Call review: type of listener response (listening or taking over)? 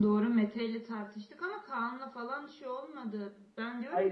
listening